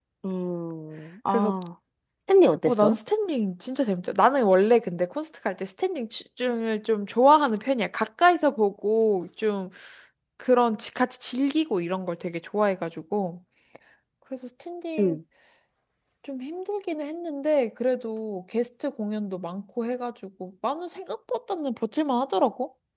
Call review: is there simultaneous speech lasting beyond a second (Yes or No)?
No